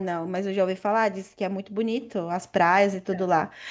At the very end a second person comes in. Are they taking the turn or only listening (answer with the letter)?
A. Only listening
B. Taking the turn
A